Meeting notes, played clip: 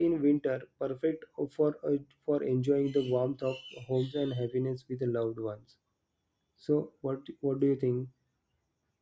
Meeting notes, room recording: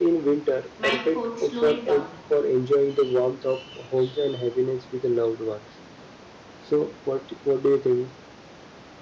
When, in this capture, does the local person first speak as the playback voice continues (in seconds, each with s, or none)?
0.8 s